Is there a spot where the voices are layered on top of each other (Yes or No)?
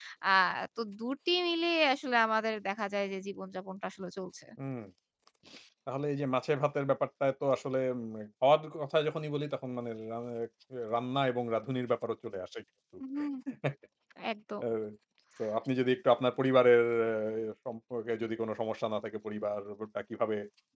No